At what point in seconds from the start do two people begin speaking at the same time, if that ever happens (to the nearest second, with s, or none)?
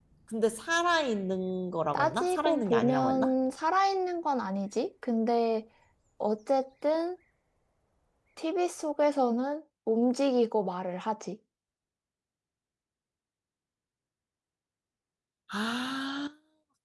2 s